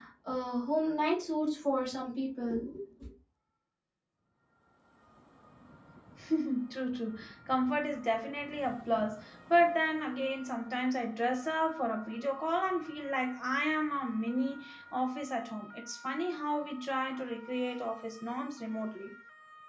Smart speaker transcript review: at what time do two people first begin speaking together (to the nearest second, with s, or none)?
none